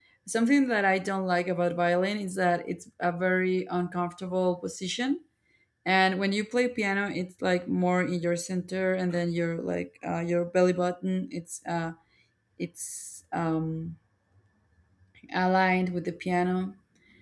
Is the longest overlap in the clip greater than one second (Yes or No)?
No